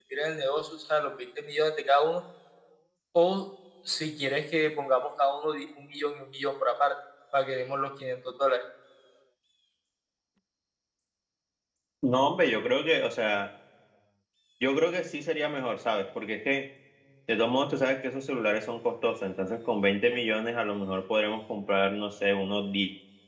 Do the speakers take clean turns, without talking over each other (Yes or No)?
Yes